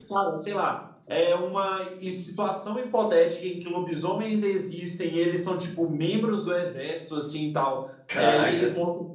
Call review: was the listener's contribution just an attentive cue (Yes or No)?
Yes